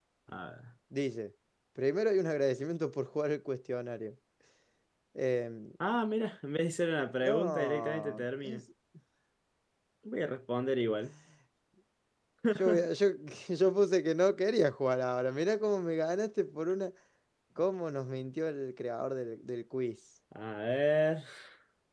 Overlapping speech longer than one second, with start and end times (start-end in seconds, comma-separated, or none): 7.2-8.6